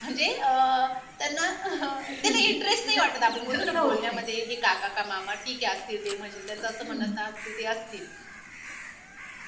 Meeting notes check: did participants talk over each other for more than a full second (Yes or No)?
Yes